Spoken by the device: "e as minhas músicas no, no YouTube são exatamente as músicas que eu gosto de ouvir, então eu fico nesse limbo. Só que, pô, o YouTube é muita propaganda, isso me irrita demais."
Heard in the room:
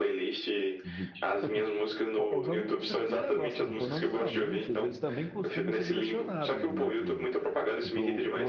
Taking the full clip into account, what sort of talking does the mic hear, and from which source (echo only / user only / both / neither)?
both